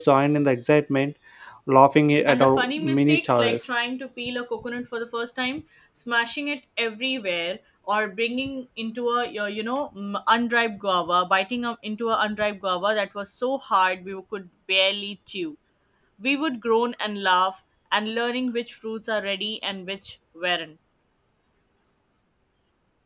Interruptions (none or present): present